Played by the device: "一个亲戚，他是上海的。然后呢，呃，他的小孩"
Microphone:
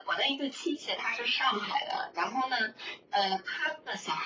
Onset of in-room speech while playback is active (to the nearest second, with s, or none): none